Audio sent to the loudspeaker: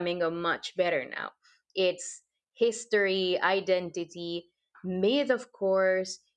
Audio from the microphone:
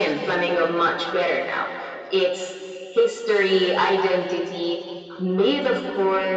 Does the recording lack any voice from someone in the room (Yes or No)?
Yes